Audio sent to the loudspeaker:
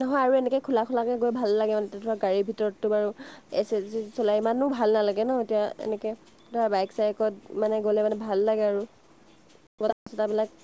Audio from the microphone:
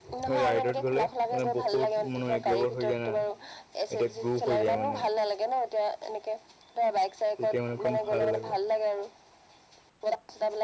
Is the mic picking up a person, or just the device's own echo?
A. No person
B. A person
B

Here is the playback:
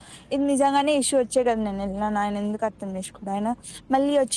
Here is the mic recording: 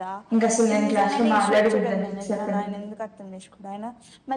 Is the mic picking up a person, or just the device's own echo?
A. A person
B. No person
A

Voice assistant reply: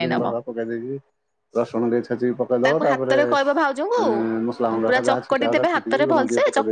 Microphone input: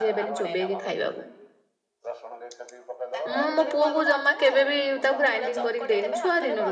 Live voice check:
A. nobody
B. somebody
B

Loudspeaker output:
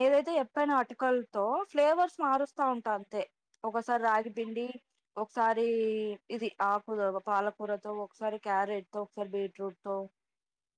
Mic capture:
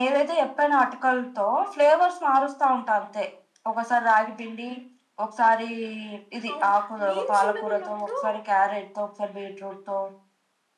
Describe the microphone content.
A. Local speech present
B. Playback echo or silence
A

